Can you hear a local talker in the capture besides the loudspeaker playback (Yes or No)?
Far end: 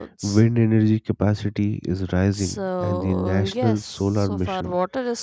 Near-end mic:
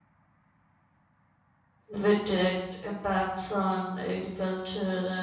Yes